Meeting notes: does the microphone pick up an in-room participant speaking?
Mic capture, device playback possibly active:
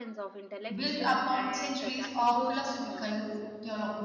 Yes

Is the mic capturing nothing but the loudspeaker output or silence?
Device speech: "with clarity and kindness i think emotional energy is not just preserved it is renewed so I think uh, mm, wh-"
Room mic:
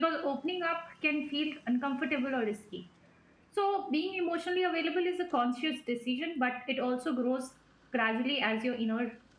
No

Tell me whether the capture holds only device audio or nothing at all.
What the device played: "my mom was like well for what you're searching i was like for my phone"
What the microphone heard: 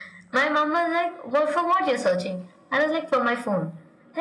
Yes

